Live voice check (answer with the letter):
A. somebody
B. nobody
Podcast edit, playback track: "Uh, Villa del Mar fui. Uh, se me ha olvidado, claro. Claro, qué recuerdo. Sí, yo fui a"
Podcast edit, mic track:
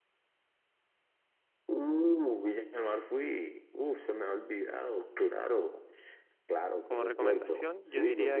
A